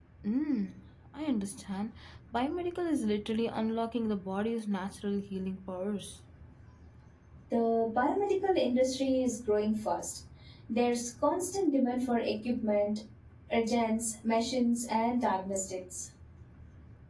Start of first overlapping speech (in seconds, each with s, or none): none